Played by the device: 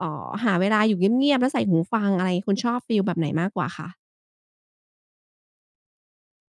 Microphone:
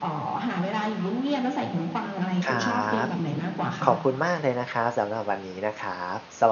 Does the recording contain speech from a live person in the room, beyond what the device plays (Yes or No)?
Yes